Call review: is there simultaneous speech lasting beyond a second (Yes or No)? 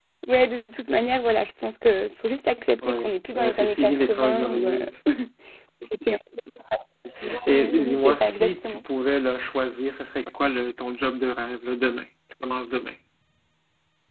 Yes